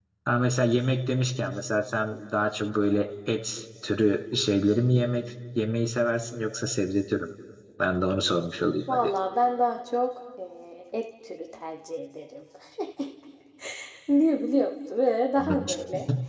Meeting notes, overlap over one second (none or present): none